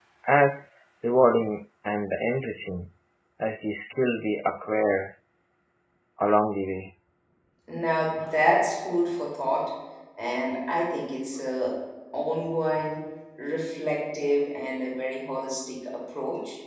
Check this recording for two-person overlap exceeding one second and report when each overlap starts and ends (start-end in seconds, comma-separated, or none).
none